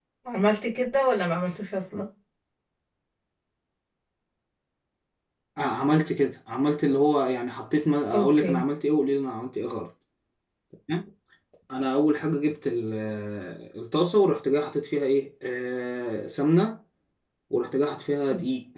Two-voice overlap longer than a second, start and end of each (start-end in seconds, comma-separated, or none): none